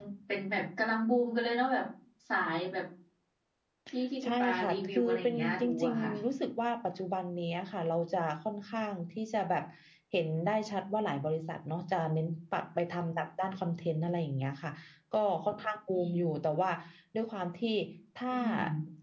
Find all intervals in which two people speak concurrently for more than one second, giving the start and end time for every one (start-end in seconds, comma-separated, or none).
4.2-6.1